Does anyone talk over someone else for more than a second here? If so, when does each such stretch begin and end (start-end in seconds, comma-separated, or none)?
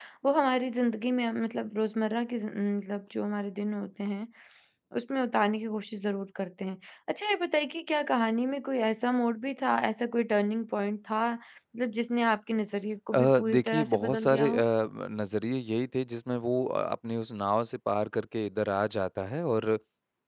13.1-14.6